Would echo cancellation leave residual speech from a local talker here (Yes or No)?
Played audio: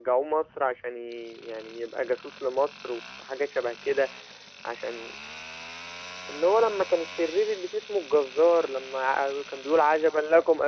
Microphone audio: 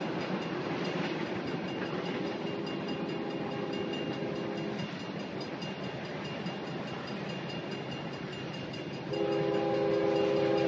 No